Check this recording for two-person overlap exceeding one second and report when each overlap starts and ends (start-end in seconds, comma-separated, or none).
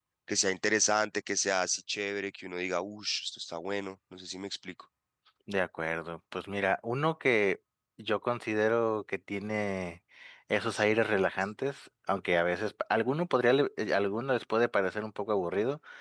none